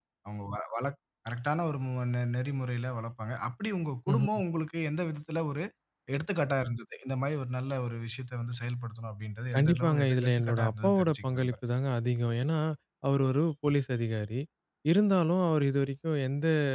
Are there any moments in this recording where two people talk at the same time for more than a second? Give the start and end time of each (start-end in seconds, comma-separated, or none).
9.6-11.6